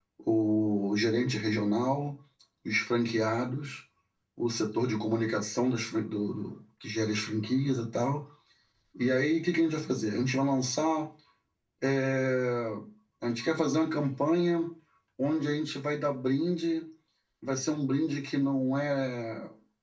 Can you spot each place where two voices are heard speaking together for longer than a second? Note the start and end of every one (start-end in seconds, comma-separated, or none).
none